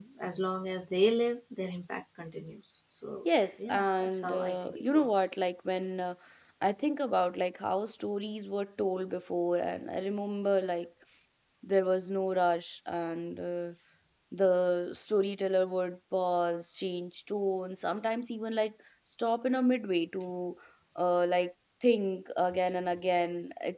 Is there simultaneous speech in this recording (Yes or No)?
Yes